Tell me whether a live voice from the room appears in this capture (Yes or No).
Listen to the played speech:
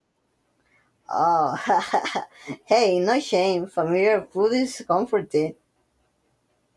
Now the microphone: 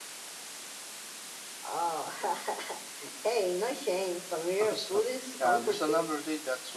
Yes